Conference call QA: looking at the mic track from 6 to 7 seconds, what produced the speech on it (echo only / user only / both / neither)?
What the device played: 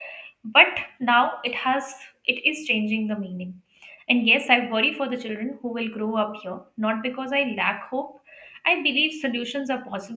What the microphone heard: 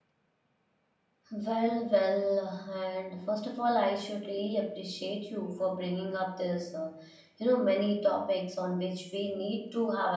user only